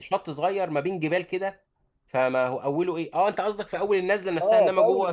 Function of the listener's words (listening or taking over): taking over